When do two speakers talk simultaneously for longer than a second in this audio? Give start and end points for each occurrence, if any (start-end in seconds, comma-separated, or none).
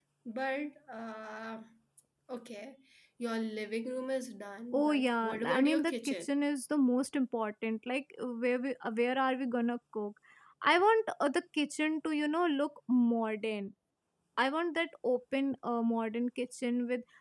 4.7-6.3